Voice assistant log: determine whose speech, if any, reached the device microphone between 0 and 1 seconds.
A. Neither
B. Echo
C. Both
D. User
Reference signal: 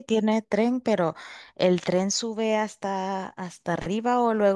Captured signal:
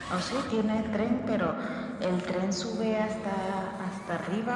B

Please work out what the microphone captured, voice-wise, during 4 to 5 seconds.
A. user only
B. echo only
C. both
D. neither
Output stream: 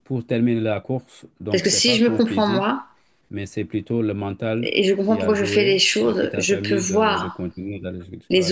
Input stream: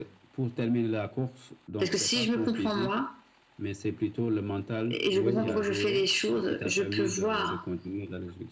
B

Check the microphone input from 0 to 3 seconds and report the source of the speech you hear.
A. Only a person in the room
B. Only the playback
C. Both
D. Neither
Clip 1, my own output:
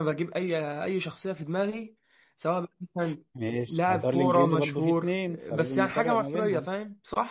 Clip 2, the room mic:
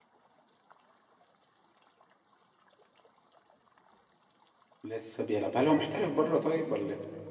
D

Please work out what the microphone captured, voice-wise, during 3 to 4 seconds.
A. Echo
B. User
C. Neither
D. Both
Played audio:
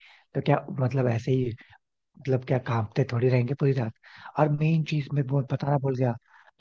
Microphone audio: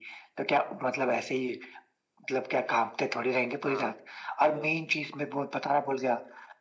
D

